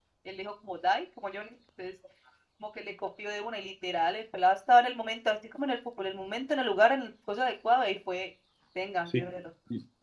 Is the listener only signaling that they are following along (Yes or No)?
No